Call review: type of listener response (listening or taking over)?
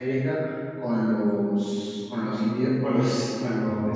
listening